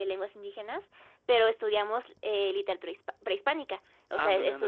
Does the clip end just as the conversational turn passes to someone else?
No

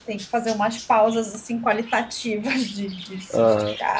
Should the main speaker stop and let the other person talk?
No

